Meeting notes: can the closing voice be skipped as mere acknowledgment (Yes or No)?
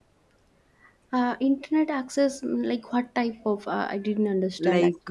No